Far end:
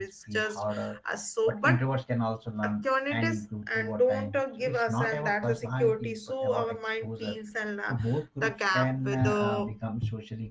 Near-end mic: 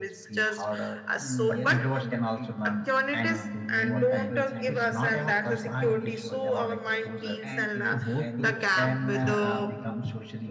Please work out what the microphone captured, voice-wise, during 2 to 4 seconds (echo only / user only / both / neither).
both